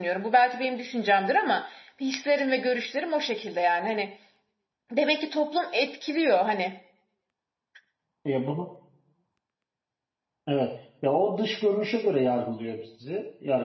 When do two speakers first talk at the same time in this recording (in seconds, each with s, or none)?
none